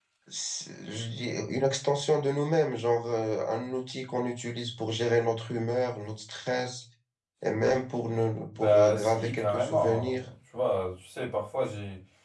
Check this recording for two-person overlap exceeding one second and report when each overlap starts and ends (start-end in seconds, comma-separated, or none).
8.6-10.2